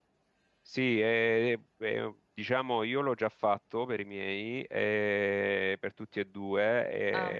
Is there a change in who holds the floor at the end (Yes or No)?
No